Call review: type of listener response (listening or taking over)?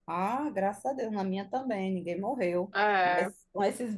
listening